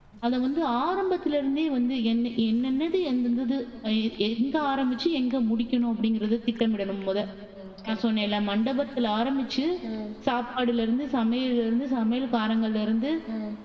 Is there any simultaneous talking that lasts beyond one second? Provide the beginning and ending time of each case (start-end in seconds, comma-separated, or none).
none